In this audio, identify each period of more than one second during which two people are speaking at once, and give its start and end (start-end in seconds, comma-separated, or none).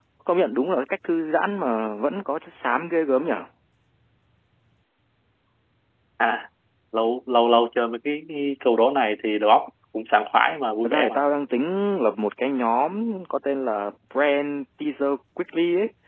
none